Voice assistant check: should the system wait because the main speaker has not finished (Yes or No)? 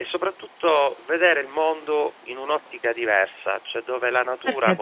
No